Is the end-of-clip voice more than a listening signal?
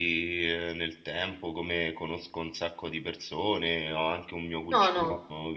No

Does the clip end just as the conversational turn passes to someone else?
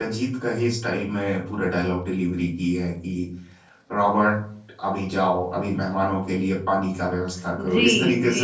Yes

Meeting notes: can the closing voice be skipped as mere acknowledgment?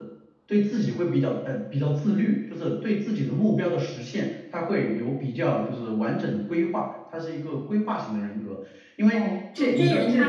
No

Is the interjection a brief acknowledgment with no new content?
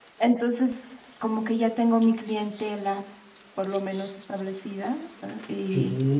No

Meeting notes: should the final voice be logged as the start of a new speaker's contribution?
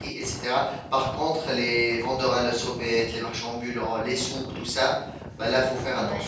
No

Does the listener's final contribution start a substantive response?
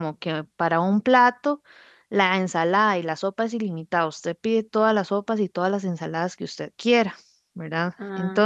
Yes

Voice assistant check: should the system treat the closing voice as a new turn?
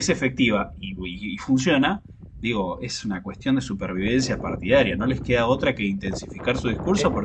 Yes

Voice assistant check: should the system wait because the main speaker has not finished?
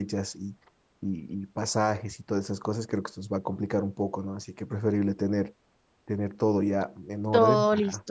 No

